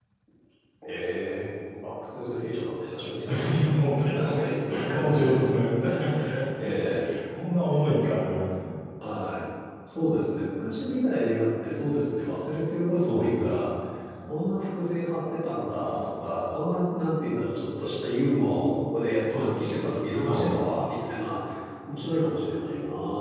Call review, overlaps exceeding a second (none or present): present